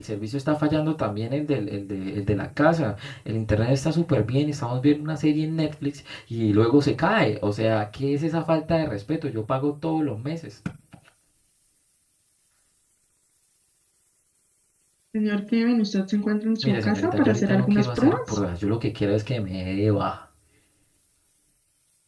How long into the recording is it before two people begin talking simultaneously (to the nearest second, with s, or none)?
17 s